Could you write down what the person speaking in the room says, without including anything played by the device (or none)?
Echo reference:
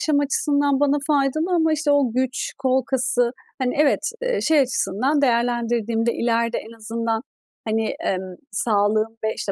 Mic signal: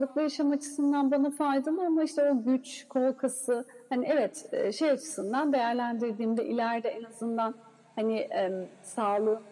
none